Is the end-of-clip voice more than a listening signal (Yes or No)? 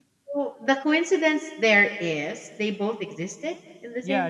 Yes